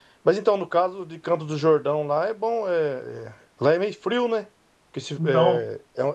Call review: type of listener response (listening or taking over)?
listening